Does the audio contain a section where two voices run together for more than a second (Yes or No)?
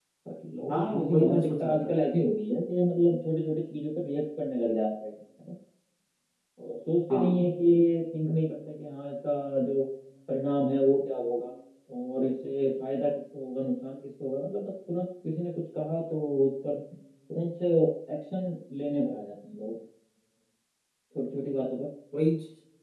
Yes